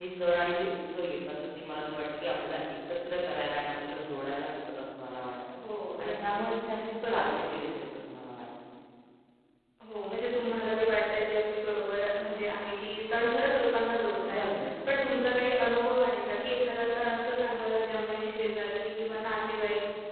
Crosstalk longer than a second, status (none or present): none